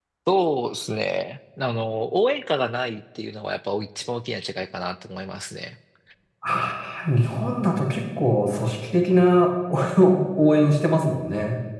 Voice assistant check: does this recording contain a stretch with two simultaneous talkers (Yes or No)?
No